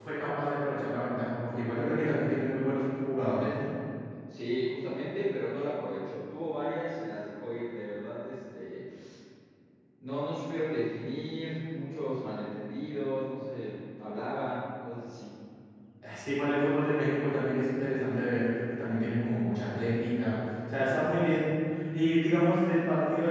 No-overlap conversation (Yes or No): Yes